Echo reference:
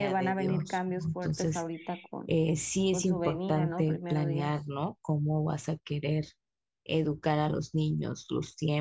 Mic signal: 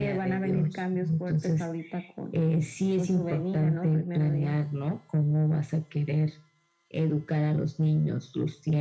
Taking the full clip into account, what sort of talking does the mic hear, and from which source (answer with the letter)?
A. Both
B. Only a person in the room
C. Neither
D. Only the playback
D